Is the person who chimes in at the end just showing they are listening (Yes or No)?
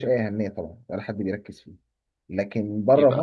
Yes